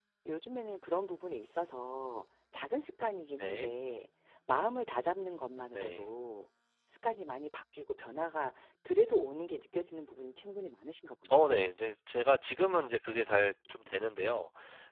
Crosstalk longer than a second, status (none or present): none